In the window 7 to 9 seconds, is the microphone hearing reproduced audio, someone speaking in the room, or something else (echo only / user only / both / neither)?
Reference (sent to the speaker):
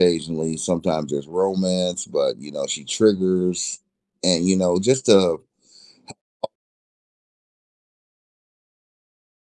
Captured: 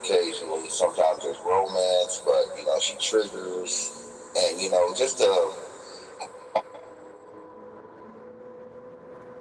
neither